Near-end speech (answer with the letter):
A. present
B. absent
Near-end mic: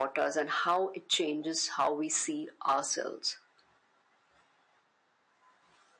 B